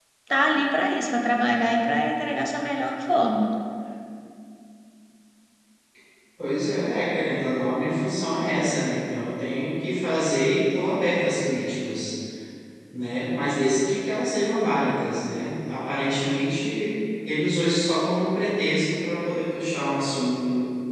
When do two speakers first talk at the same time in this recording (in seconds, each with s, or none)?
none